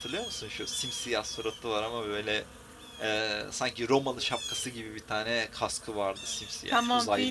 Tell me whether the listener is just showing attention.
No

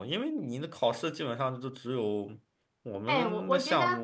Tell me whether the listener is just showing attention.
No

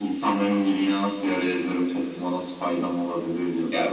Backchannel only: No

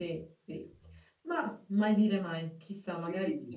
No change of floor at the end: No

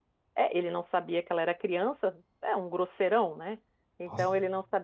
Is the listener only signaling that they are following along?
Yes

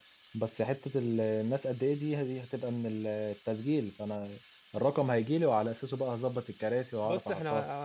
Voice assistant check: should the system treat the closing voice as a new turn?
Yes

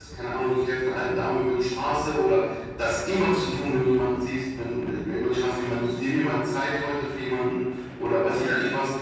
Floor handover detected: No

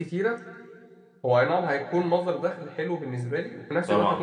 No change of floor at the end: Yes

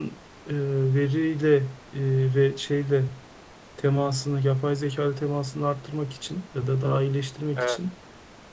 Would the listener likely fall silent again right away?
Yes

